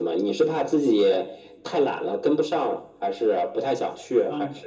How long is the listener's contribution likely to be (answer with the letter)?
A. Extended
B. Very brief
A